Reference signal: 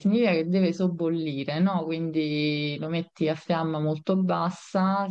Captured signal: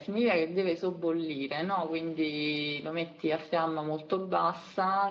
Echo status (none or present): present